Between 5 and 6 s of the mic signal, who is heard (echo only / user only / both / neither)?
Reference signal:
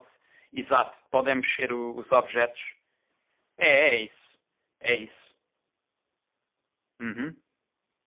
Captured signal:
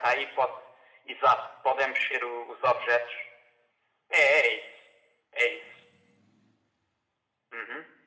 echo only